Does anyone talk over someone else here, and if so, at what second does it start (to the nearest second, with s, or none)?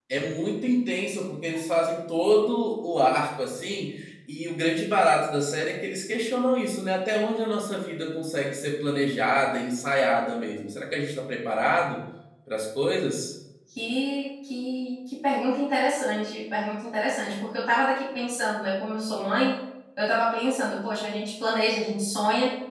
none